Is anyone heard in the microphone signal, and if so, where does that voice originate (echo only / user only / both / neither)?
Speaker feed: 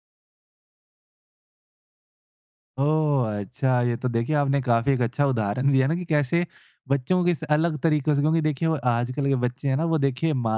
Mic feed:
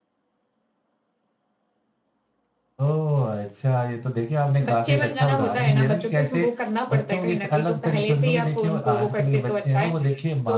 both